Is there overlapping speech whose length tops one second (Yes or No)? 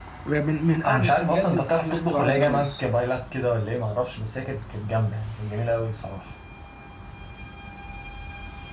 Yes